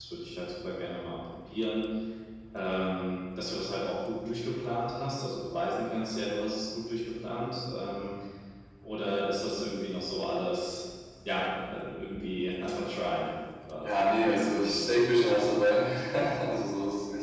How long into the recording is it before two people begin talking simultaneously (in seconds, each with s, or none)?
13.8 s